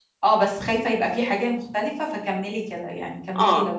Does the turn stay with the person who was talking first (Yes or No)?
No